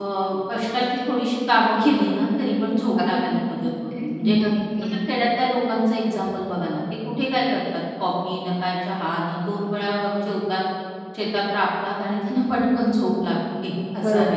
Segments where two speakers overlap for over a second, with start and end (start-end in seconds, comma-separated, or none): none